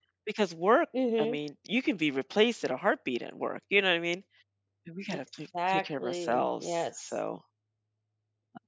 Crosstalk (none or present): present